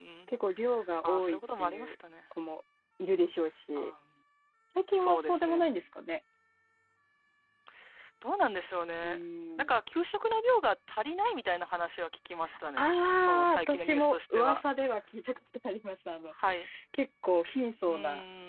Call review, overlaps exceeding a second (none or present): present